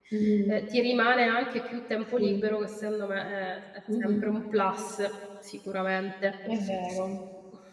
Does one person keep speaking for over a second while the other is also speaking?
No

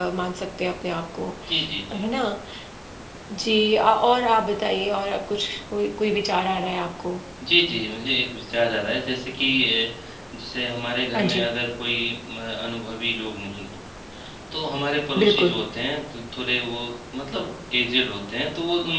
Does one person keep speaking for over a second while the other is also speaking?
No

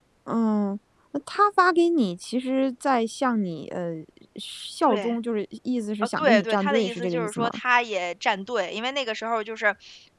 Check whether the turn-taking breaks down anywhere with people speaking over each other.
Yes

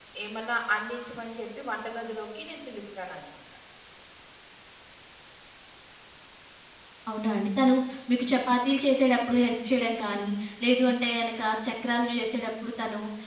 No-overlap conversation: Yes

